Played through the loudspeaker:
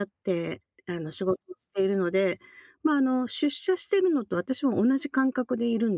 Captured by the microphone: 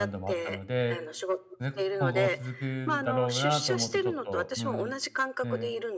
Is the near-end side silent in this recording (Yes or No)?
No